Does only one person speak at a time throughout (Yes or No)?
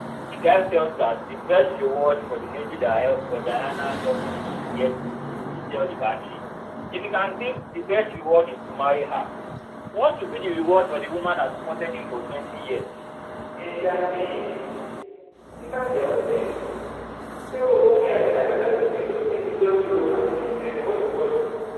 Yes